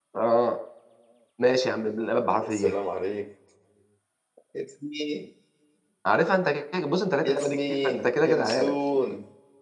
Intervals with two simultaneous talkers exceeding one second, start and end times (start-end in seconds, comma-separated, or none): 7.2-8.8